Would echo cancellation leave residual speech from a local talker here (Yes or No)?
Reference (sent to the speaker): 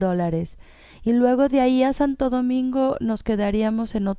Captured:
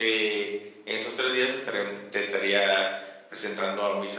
Yes